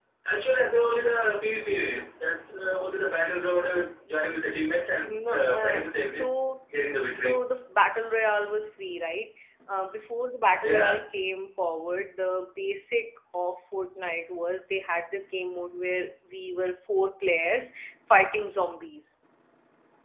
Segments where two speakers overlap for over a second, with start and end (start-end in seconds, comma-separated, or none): 5.1-6.4